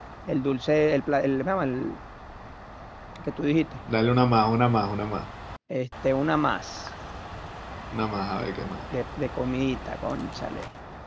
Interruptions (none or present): none